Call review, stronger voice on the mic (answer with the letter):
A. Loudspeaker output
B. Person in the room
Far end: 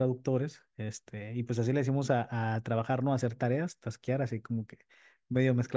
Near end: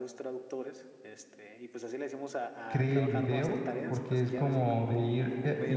B